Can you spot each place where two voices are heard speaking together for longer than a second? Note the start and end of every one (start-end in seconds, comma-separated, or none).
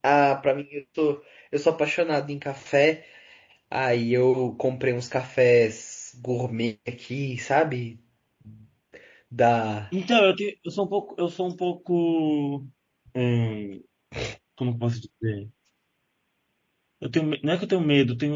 none